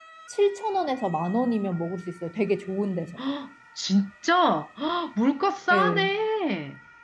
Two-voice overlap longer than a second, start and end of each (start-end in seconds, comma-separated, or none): none